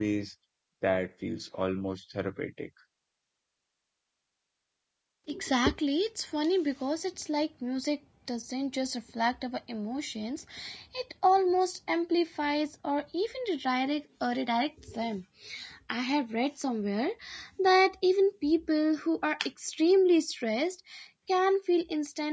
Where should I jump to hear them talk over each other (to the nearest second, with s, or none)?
none